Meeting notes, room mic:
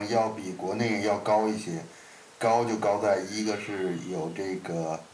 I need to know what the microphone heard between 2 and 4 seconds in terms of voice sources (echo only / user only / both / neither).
echo only